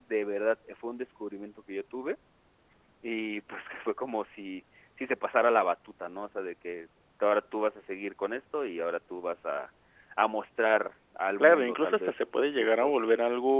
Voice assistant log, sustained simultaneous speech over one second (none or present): present